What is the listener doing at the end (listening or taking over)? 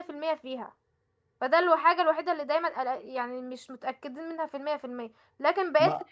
listening